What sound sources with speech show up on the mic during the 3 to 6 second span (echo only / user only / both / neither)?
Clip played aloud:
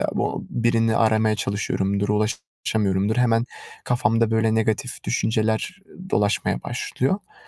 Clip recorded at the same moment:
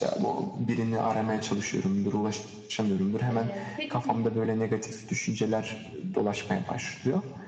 both